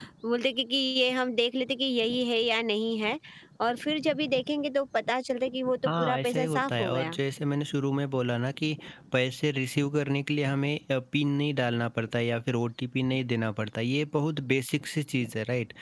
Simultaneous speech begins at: 6 s

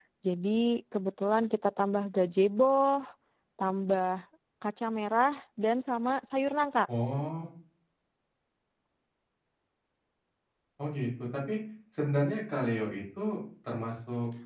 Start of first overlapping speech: none

